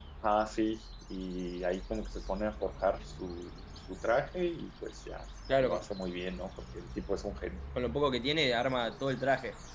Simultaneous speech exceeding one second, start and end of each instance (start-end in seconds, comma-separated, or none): none